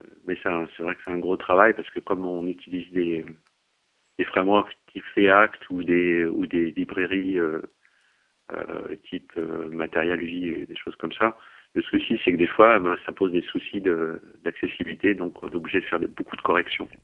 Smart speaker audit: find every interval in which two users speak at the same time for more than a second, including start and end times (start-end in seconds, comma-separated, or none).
none